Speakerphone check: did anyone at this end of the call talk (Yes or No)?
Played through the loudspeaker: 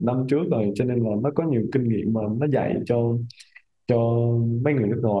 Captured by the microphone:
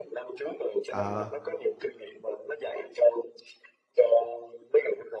Yes